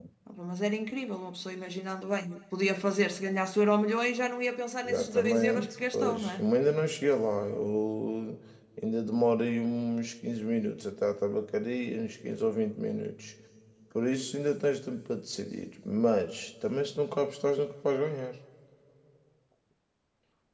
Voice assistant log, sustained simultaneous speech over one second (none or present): present